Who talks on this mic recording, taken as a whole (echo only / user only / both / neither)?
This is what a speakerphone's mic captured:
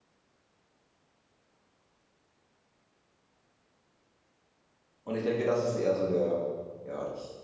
user only